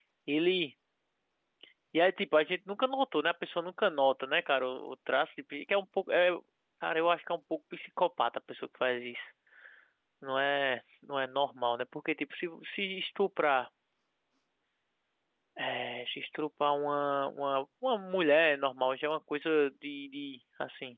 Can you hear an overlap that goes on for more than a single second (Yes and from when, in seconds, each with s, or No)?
No